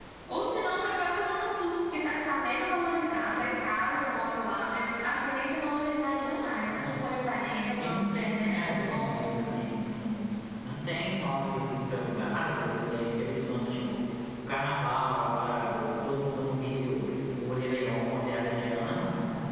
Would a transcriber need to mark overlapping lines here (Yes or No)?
Yes